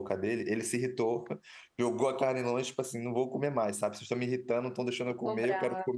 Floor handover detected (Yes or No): No